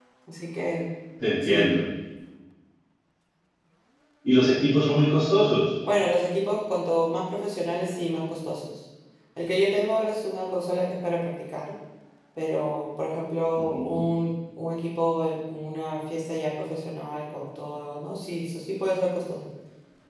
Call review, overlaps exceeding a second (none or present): none